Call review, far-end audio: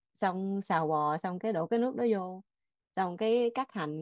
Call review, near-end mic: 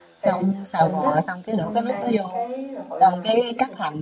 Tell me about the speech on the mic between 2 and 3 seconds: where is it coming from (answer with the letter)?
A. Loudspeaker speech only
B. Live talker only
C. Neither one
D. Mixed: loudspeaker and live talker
D